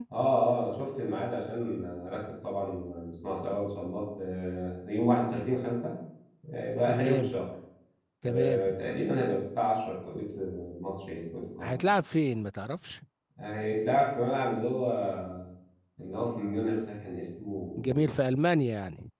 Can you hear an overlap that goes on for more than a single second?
No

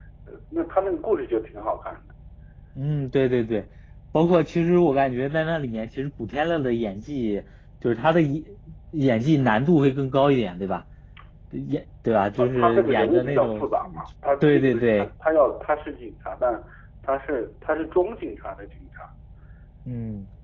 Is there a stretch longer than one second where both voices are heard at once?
Yes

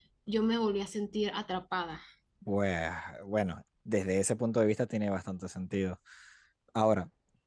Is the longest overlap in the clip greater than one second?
No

